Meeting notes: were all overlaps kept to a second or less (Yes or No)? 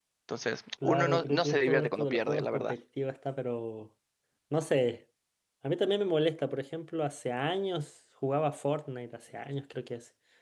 No